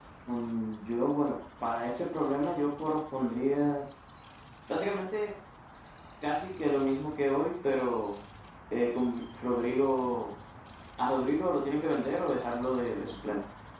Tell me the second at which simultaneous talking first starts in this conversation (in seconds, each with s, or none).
none